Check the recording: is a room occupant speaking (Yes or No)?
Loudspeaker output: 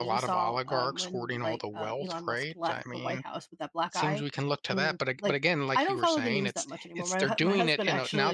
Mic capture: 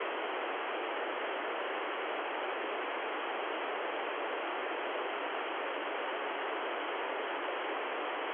No